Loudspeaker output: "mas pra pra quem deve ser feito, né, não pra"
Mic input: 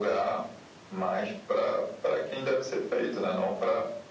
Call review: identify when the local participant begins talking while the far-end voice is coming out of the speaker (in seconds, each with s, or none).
none